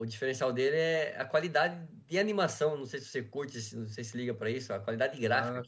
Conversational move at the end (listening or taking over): taking over